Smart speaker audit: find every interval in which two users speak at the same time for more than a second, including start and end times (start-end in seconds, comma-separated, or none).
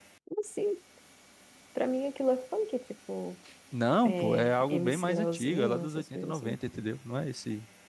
4.0-6.6